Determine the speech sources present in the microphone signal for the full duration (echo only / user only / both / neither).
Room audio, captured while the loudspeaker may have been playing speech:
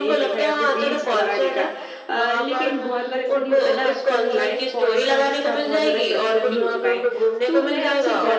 both